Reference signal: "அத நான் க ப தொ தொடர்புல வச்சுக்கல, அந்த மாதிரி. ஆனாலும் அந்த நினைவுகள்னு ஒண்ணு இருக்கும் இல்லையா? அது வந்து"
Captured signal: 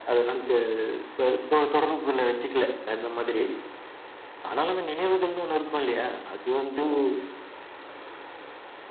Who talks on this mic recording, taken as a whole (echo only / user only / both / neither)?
echo only